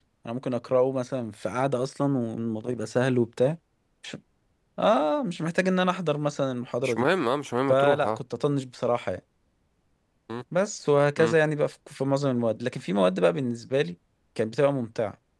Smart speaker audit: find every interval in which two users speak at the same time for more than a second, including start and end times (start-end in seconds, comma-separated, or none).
none